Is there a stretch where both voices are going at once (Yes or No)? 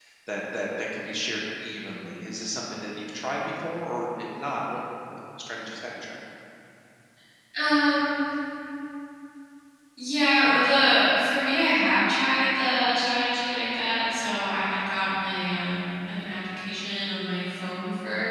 No